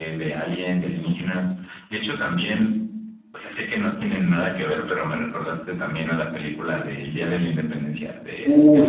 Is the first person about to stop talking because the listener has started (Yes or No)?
Yes